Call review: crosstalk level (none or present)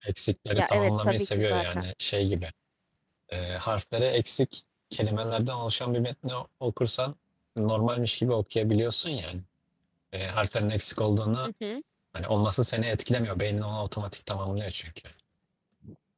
present